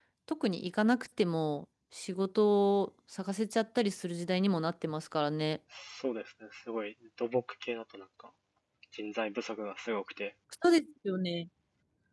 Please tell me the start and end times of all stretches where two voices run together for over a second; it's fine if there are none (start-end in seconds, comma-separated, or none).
none